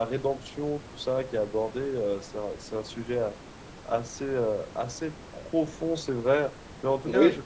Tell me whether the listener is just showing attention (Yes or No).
Yes